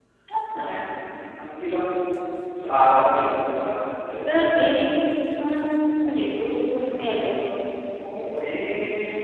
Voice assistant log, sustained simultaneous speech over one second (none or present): none